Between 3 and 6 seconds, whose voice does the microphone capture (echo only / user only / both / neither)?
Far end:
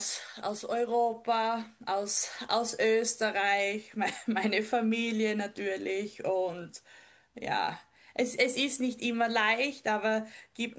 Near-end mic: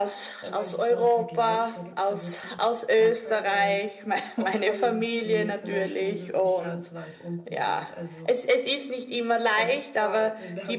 both